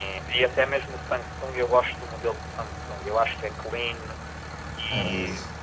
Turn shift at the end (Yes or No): No